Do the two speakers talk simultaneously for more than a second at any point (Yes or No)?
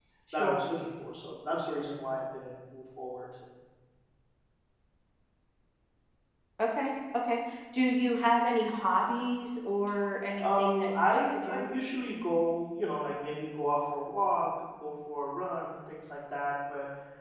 Yes